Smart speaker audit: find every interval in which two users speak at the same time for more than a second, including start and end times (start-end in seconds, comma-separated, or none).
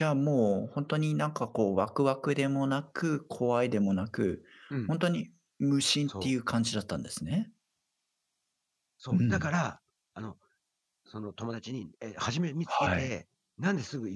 none